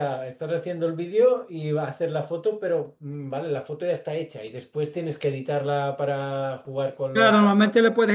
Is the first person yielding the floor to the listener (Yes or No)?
Yes